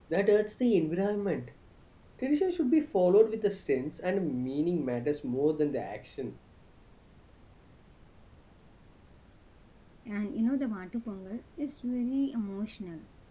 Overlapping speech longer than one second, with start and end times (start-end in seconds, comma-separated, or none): none